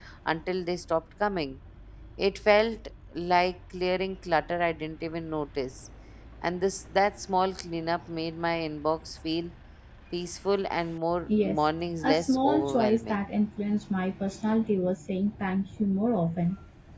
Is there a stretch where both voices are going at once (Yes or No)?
Yes